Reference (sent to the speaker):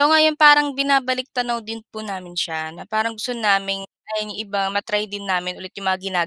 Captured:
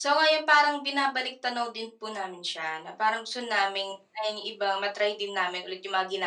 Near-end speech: none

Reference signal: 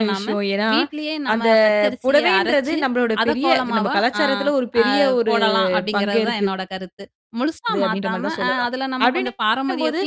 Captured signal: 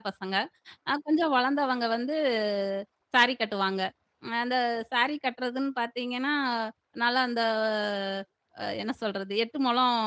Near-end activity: present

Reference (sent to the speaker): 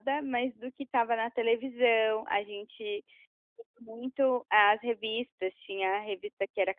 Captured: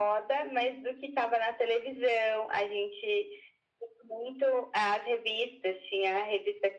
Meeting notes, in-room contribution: none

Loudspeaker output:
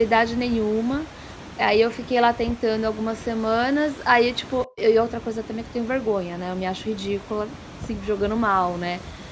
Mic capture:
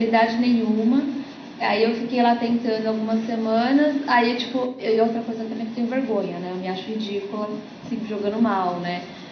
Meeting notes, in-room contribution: none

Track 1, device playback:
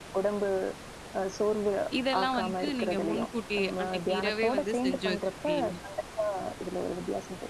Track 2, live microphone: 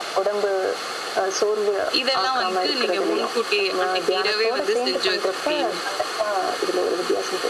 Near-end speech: none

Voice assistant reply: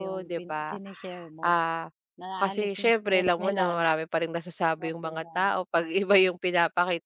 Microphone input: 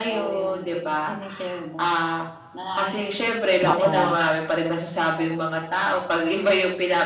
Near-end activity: present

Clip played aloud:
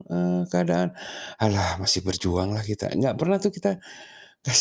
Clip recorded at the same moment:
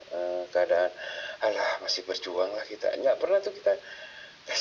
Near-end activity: none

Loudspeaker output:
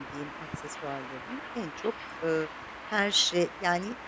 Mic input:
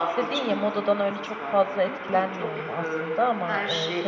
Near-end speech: present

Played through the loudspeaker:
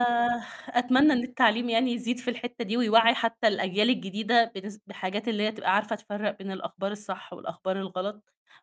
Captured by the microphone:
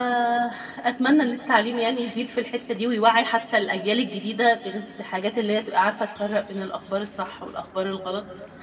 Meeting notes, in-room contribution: none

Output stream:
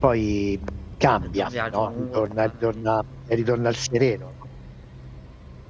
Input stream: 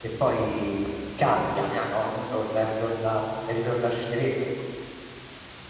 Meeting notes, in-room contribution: none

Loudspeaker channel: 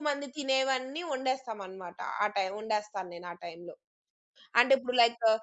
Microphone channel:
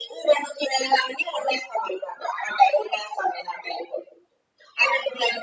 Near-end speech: none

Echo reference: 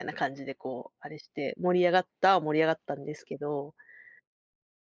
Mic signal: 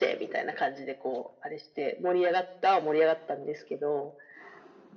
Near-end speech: none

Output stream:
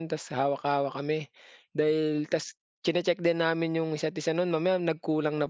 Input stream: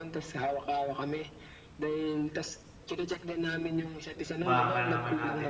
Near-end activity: present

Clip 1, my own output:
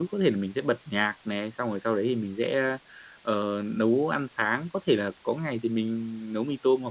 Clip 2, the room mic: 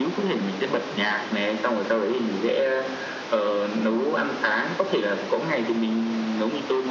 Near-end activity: none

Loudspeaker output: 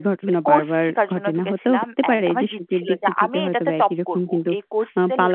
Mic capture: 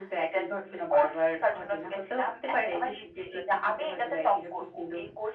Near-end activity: none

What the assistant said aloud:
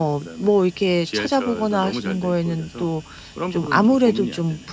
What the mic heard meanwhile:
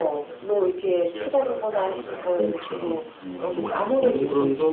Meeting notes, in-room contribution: present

